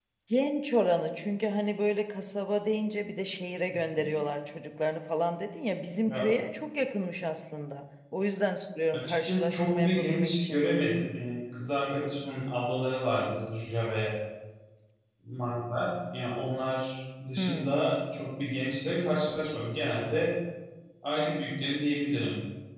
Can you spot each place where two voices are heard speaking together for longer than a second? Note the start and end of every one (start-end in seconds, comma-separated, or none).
8.9-10.6